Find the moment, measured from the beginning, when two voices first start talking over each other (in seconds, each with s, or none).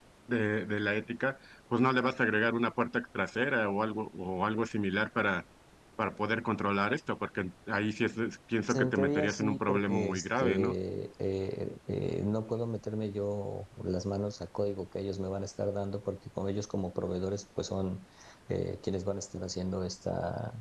8.7 s